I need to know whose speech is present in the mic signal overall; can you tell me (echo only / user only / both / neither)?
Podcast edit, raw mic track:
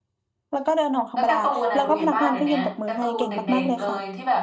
both